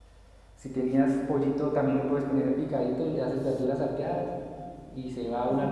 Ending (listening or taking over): listening